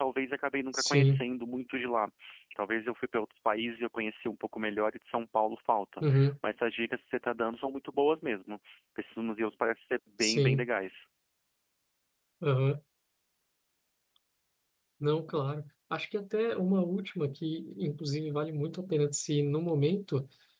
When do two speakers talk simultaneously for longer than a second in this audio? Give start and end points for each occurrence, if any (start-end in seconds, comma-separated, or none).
none